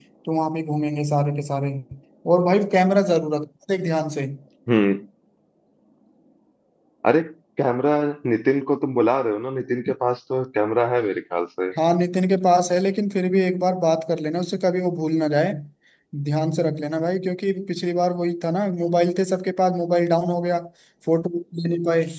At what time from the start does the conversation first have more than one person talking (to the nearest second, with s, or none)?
none